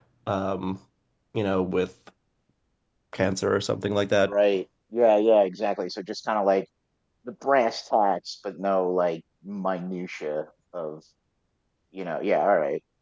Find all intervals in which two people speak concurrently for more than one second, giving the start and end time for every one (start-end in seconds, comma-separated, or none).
none